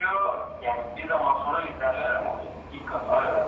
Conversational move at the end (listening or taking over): taking over